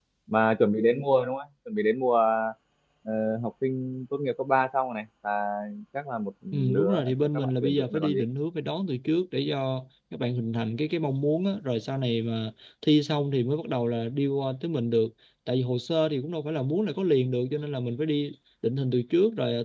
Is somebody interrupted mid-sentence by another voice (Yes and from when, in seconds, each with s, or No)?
Yes, from 6.5 s